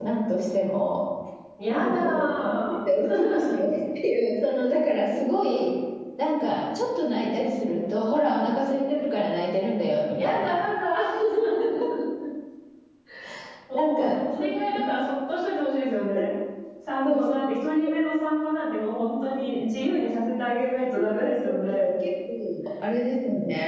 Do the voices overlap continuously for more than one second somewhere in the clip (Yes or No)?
Yes